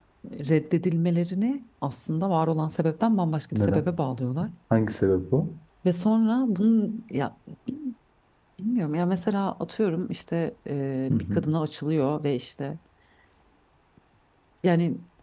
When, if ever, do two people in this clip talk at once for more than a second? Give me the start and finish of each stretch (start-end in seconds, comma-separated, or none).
none